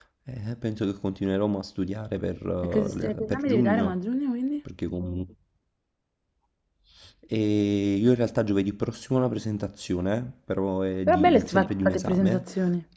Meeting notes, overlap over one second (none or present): present